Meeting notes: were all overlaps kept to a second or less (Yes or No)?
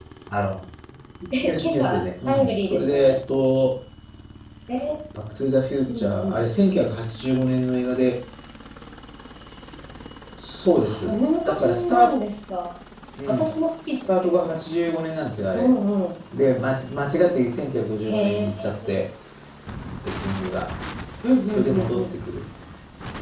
No